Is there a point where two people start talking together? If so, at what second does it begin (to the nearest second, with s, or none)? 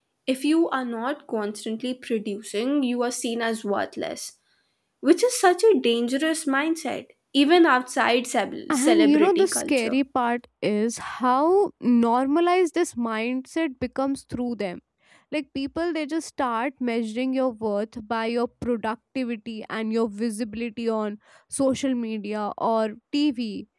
9 s